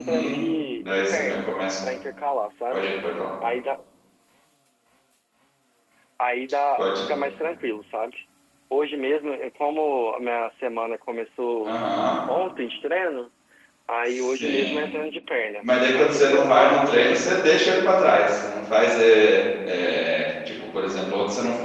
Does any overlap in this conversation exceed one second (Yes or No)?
Yes